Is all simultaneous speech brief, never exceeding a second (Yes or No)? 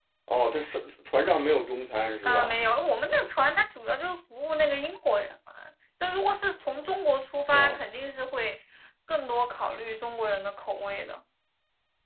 Yes